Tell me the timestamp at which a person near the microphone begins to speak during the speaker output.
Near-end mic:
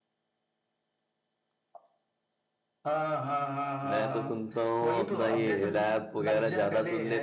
4 s

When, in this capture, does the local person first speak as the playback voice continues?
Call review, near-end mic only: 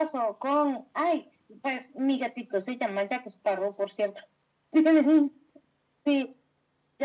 none

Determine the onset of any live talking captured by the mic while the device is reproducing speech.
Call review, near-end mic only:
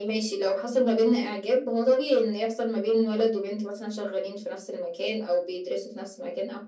none

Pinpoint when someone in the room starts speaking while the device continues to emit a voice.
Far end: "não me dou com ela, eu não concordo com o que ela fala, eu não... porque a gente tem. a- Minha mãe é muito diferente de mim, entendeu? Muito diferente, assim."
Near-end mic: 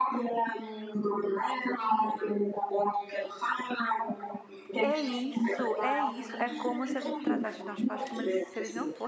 5 s

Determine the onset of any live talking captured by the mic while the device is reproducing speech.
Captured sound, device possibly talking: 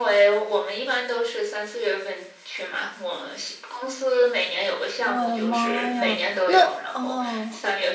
5 s

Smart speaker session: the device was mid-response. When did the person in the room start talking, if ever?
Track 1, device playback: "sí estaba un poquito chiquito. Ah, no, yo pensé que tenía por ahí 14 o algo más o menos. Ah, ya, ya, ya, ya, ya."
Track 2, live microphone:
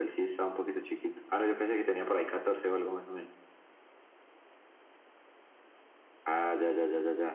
none

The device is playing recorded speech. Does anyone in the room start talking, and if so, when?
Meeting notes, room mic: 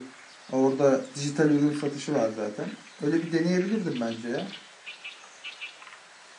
none

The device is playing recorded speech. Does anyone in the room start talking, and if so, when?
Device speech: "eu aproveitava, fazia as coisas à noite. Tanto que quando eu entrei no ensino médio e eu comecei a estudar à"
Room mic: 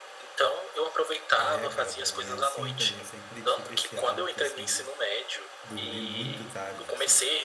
1 s

